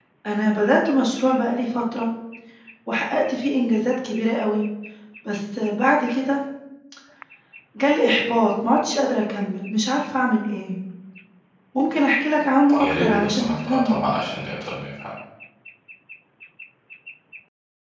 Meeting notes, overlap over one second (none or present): present